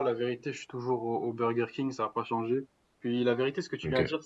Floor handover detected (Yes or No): No